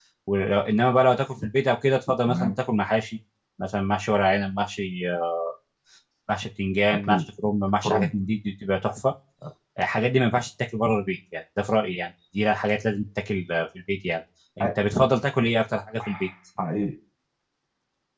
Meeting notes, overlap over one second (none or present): none